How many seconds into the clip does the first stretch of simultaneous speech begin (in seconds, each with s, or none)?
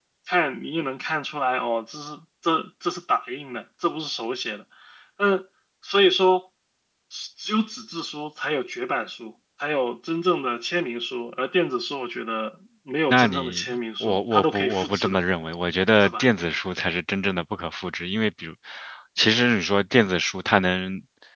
13.1 s